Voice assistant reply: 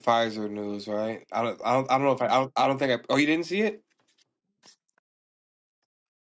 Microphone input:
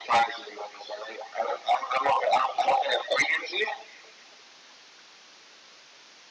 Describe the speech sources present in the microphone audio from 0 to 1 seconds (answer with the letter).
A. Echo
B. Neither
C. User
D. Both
A